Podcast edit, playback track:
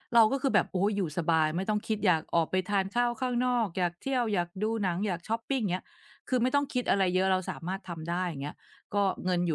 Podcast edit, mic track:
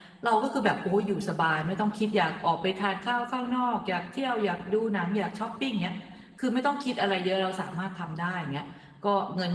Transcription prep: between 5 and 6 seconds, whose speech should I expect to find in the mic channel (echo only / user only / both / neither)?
echo only